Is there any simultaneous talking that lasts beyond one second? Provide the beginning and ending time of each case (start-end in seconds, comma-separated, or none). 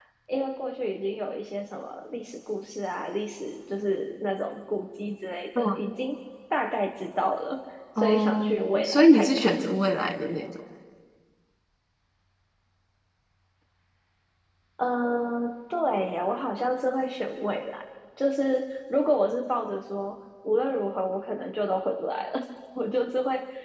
8.0-9.6